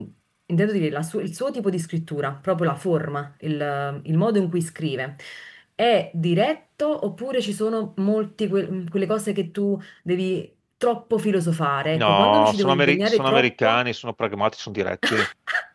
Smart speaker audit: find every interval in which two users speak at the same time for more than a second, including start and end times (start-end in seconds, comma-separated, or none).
12.0-13.8